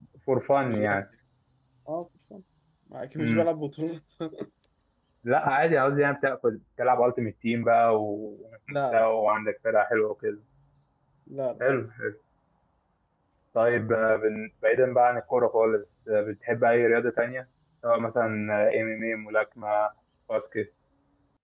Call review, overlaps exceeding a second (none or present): none